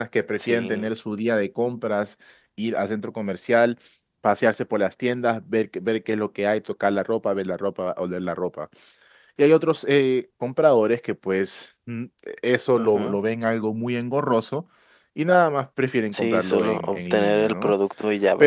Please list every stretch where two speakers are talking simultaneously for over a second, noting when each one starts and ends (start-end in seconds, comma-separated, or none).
16.1-17.7